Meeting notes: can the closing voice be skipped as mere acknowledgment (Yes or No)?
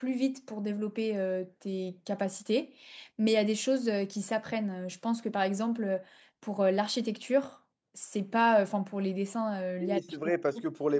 No